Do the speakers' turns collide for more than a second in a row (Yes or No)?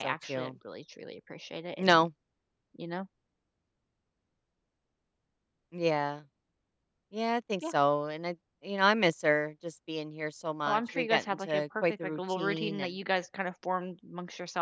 Yes